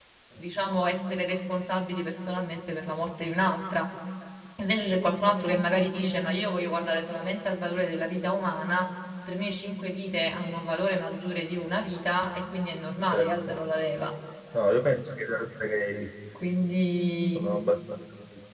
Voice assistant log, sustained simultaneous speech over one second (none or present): none